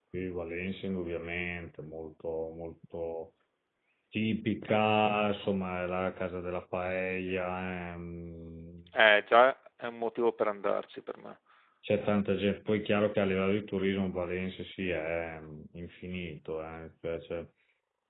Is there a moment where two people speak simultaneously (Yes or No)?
No